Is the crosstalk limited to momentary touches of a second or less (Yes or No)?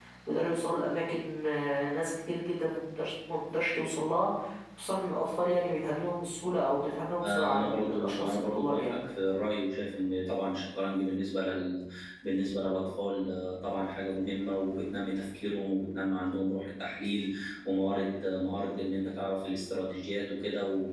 No